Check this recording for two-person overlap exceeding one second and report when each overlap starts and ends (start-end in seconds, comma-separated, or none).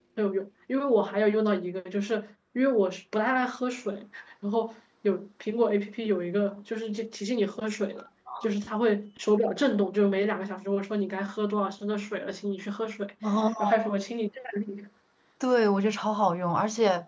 none